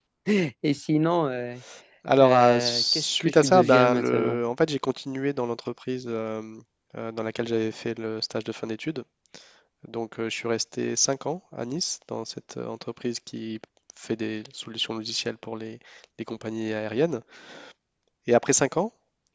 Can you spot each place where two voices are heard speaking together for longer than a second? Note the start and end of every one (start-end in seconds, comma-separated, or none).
2.2-4.4